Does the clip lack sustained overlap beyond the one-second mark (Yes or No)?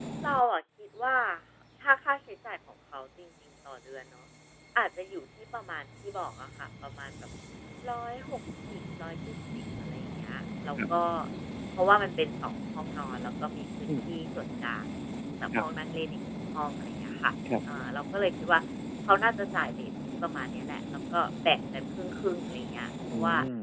Yes